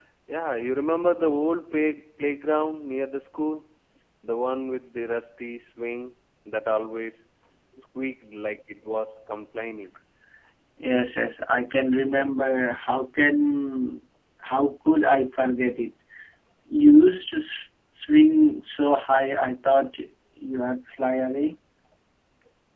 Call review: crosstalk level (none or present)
none